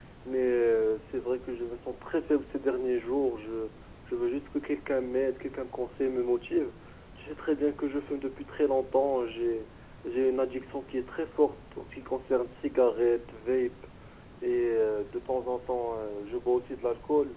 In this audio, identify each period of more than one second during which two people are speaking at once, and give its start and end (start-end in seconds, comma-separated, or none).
none